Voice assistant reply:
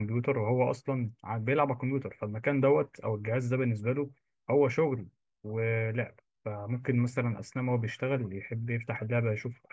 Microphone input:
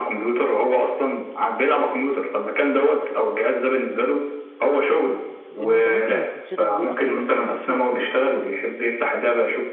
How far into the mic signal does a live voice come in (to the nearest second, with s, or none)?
6 s